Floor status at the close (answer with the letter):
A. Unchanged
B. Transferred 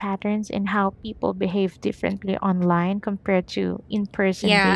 B